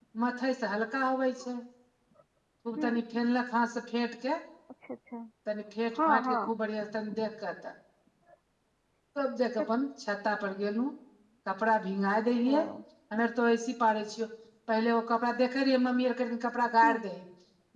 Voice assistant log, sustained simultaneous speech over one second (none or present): none